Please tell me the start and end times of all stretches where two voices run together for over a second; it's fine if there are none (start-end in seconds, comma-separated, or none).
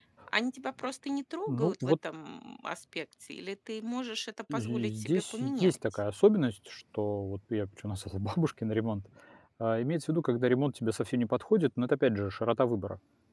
4.5-5.8